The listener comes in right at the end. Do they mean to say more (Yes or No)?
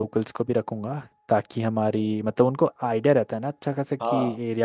No